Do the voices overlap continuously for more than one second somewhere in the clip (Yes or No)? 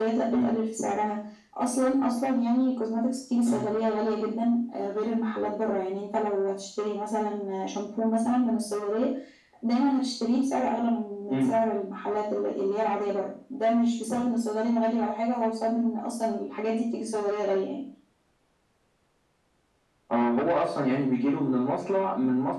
No